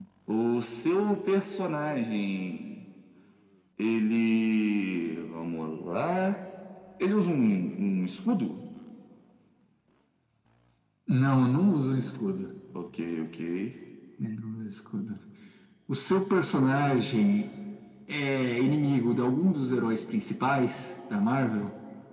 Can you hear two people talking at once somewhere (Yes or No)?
No